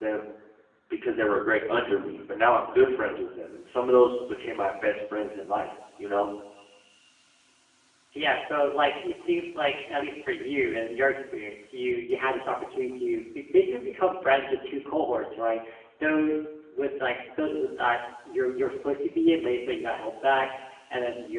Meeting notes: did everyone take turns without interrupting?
Yes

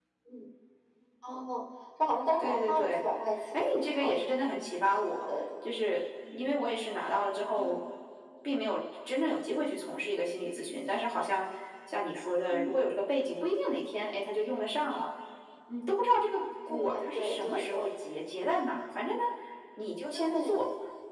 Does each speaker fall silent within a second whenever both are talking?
No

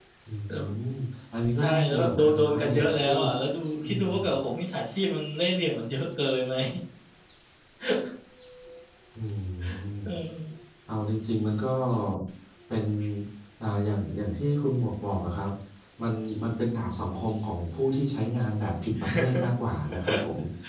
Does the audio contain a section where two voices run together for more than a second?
Yes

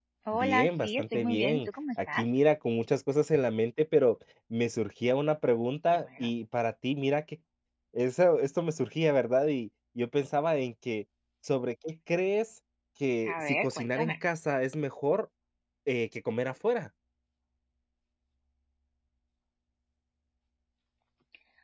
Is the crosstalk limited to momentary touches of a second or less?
No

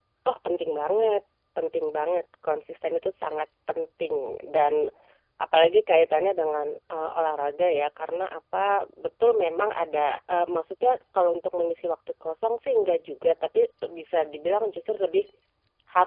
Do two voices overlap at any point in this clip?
No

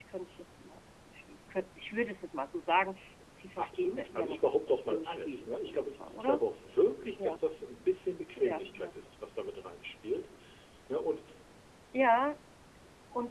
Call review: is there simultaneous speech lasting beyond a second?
Yes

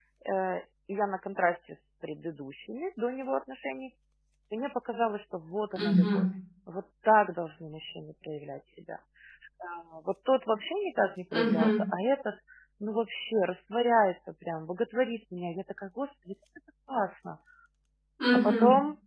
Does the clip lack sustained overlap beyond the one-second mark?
Yes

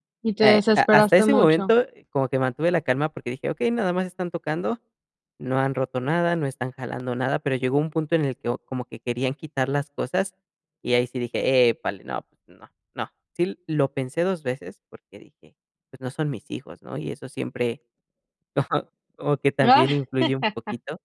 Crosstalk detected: Yes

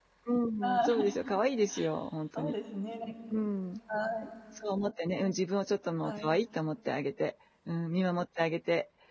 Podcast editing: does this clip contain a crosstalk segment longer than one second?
No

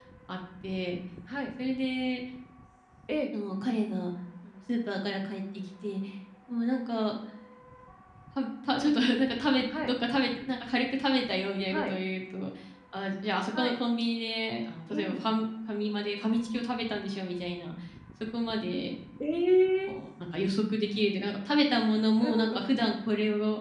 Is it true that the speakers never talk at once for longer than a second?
Yes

